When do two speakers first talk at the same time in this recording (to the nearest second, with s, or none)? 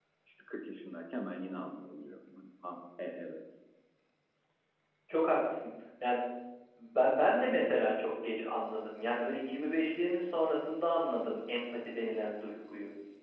none